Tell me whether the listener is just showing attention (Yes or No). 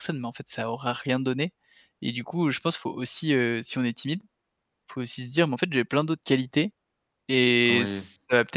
Yes